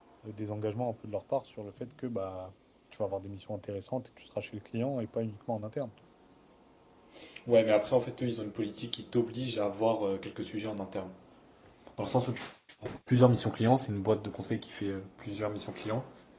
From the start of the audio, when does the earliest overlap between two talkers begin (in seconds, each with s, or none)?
none